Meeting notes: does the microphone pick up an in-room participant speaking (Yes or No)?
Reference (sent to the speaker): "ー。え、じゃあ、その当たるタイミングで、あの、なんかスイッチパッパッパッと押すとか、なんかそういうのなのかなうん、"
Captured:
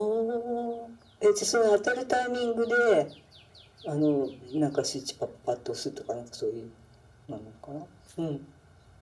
No